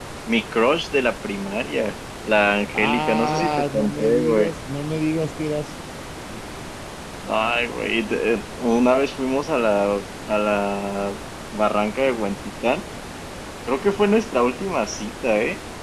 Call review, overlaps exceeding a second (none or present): present